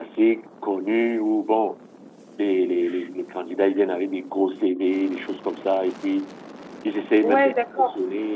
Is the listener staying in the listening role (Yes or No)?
No